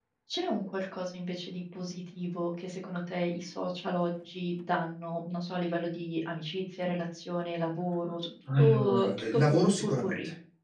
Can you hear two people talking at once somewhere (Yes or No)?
Yes